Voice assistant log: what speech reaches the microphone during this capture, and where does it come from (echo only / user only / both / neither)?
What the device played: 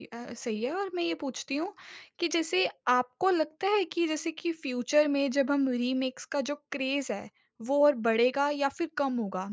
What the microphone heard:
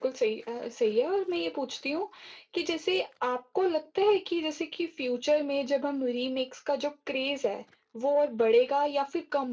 echo only